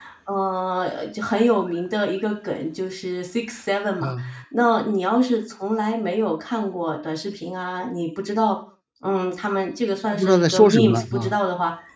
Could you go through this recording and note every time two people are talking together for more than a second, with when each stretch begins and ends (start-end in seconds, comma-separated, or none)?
10.1-11.4